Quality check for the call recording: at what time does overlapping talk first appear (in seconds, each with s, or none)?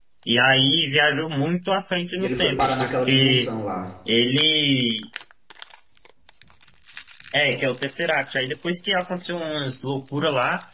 2.1 s